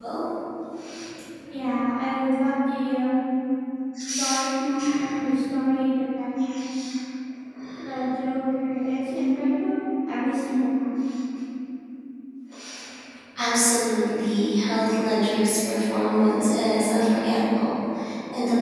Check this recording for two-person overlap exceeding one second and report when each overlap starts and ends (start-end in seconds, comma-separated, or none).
none